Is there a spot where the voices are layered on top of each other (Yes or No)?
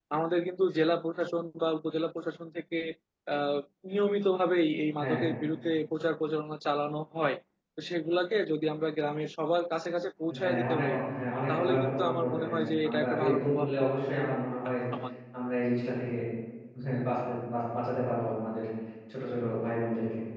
Yes